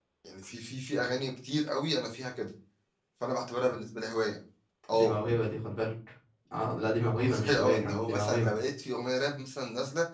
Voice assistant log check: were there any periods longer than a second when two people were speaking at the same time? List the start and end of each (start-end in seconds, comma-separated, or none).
7.2-8.5